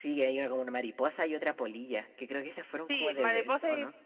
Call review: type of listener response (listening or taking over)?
taking over